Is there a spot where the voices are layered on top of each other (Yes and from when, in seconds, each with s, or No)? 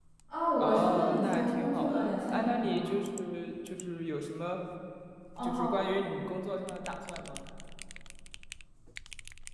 Yes, from 0.6 s